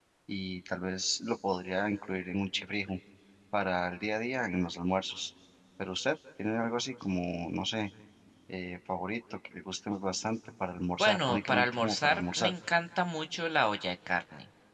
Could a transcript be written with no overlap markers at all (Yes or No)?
No